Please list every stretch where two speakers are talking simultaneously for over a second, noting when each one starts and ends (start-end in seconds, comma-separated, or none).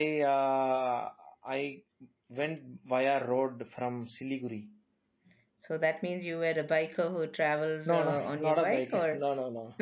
7.9-9.2